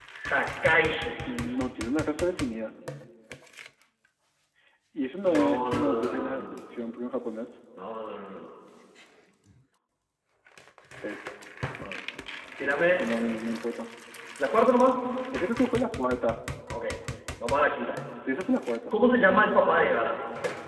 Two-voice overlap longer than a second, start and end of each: 5.2-6.5

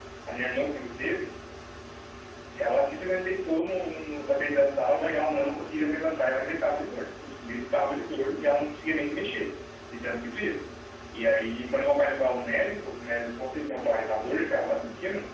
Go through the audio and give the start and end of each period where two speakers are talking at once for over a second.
none

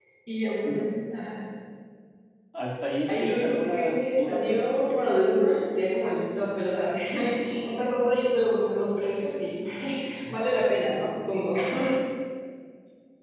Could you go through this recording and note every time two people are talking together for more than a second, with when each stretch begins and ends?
3.1-5.1

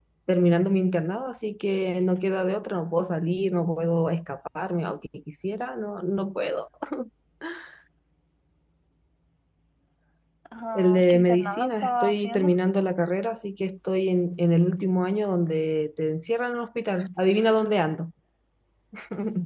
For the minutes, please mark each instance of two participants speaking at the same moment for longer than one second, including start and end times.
10.8-12.5

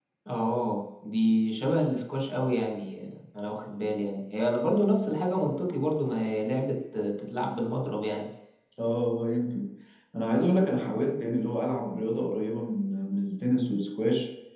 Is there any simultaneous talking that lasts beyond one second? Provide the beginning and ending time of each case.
none

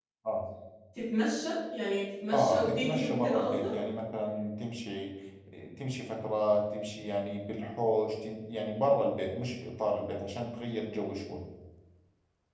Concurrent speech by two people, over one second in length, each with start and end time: 2.3-3.7

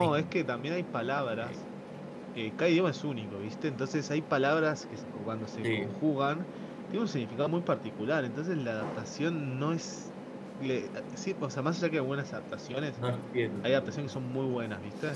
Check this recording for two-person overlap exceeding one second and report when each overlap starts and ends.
none

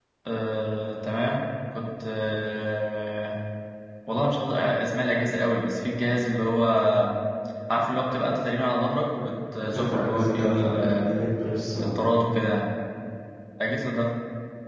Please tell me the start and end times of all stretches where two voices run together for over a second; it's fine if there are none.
9.6-11.2

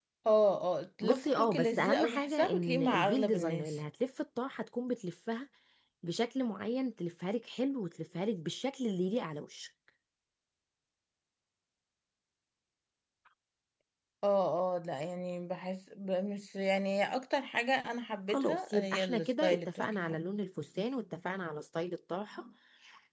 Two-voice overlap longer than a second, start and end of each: 1.0-3.8, 18.3-20.2

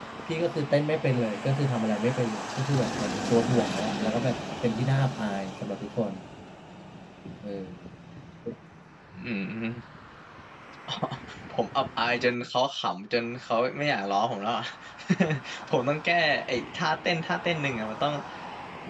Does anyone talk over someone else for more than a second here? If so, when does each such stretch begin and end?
none

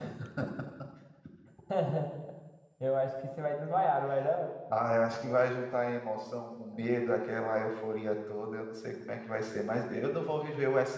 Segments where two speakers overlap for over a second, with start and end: none

